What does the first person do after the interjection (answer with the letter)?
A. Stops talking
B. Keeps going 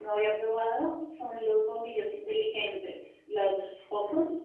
A